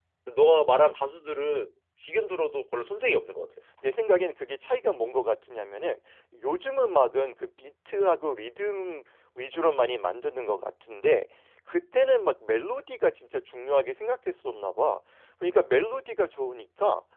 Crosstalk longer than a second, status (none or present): none